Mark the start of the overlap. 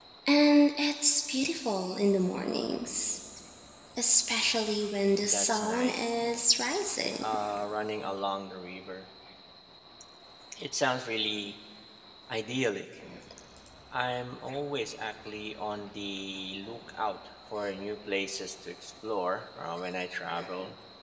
5.2 s

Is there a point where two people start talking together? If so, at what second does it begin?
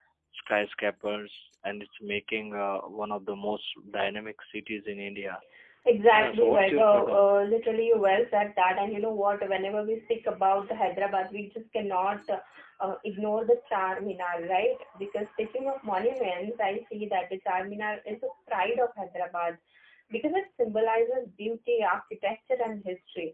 6.1 s

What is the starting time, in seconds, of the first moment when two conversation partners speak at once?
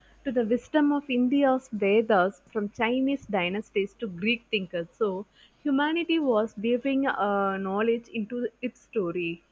none

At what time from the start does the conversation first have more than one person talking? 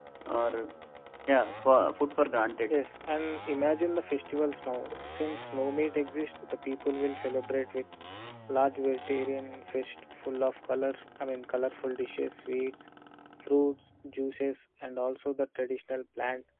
none

